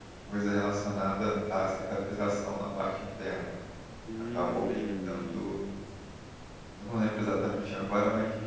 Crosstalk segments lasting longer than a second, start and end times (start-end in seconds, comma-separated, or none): 4.3-5.6